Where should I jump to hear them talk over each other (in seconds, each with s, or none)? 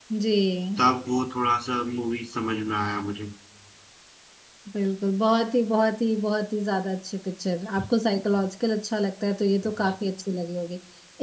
none